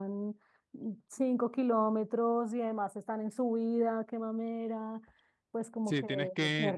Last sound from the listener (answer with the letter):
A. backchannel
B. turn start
B